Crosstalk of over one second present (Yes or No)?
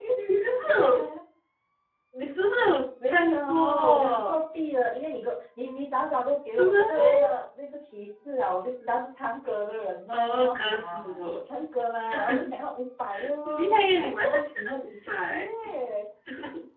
Yes